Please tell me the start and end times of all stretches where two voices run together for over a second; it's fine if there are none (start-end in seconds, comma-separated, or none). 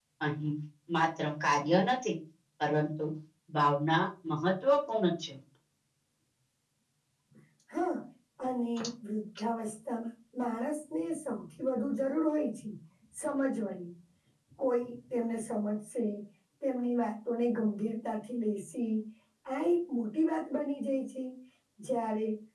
none